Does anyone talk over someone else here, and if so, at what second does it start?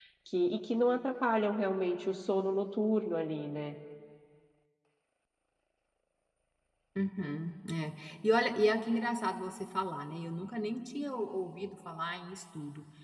none

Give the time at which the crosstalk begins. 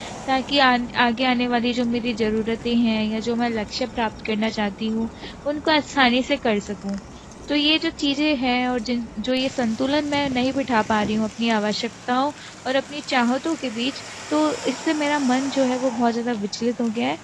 none

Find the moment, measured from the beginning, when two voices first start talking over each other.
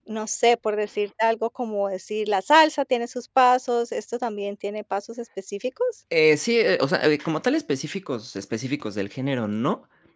none

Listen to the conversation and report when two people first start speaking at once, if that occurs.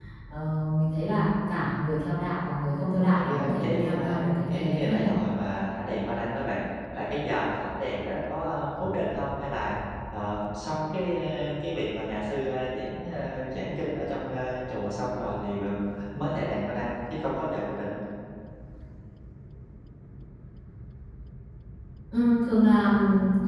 3.0 s

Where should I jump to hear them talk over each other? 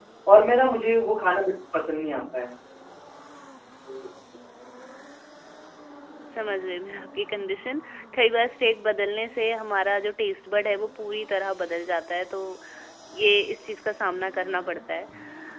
none

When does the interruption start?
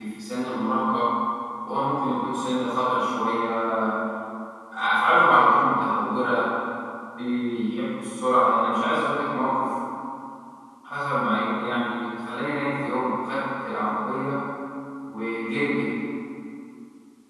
none

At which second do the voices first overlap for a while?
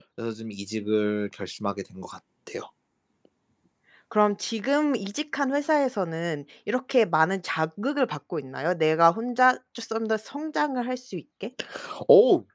none

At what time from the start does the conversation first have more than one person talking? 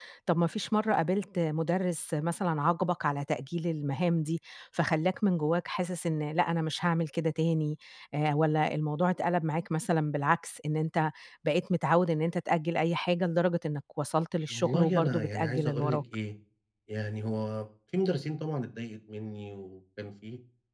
14.5 s

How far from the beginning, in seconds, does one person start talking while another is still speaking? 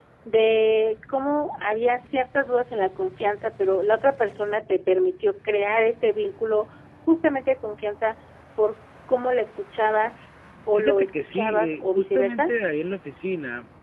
10.8 s

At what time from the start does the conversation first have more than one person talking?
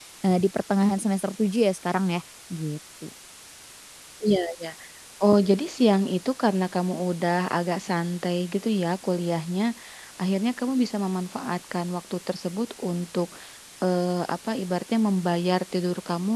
none

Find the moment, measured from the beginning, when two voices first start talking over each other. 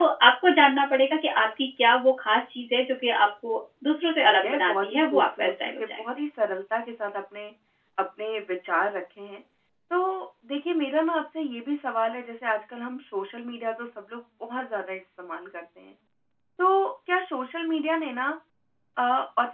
4.1 s

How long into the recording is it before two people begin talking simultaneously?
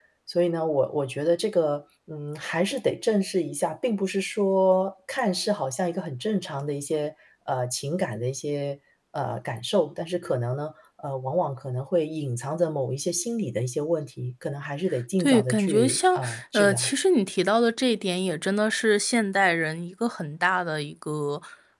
15.2 s

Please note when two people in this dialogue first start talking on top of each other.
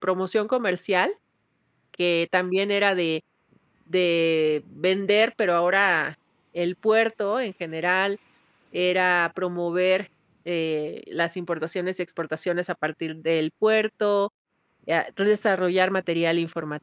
none

